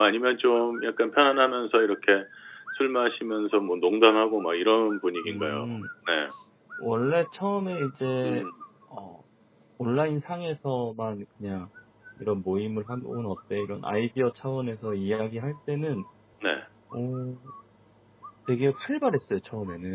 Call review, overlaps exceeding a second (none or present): none